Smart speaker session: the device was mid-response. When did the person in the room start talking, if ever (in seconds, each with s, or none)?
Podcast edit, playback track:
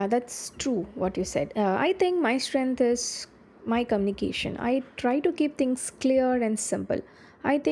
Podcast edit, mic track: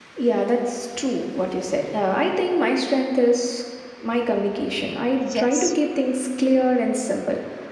5.2 s